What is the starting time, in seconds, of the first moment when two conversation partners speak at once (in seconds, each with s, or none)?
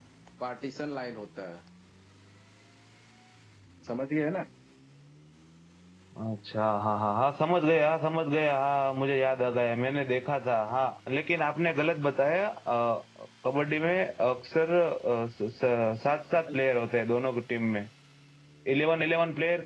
none